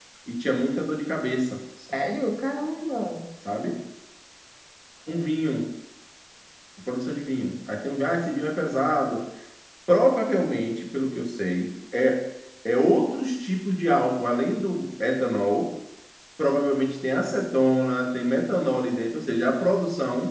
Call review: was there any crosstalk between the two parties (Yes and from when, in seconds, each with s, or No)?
No